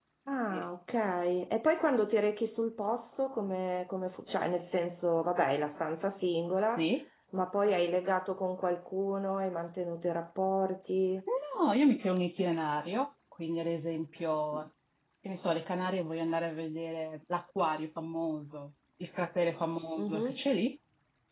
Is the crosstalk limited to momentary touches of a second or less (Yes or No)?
Yes